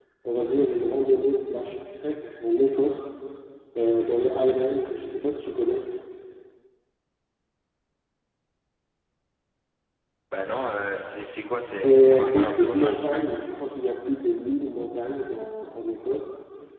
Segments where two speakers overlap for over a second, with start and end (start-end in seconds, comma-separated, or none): 11.6-13.2